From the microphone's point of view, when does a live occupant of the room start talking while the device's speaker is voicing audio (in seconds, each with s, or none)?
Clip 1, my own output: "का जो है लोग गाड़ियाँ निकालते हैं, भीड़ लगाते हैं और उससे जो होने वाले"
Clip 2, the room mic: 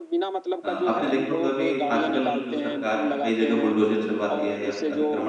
0.6 s